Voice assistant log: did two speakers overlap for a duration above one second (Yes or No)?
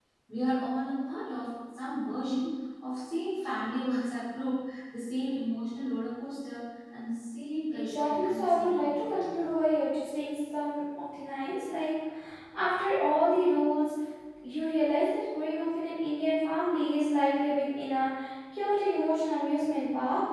Yes